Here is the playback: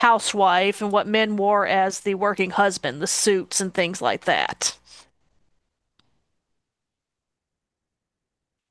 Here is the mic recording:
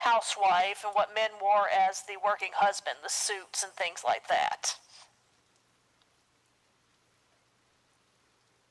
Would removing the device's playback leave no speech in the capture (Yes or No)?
Yes